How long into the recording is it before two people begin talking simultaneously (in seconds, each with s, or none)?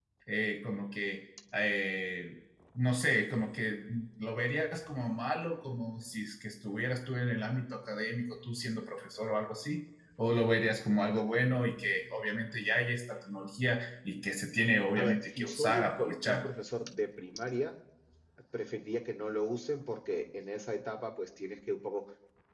14.9 s